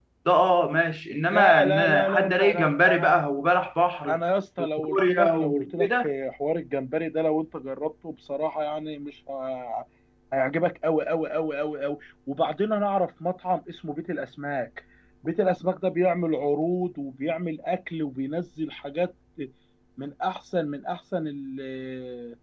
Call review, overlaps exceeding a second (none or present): present